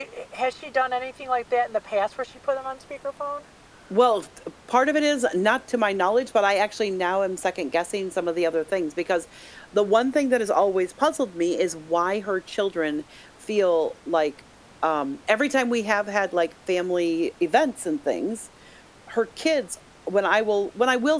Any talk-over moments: No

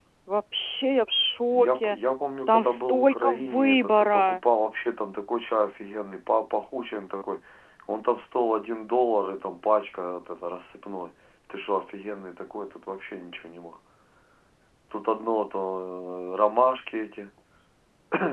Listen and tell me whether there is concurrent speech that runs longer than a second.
Yes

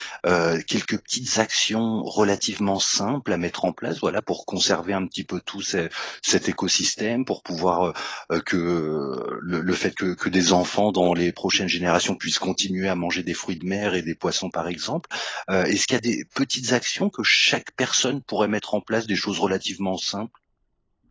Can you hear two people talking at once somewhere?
No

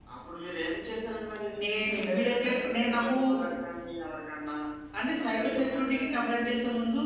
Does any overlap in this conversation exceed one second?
Yes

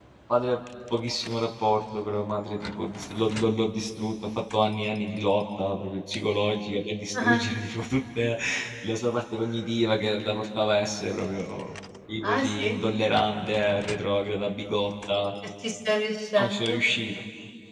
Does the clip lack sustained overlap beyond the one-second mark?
Yes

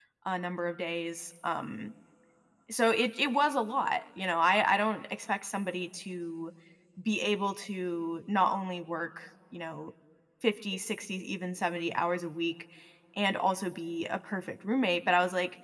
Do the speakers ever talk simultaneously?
No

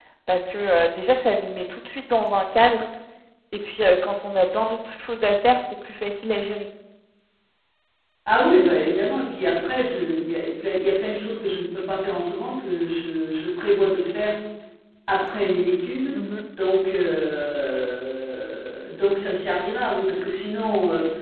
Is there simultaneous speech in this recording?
No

